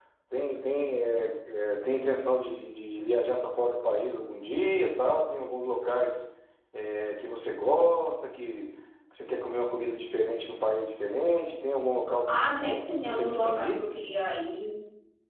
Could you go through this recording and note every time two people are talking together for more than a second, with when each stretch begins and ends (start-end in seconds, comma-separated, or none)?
12.3-13.8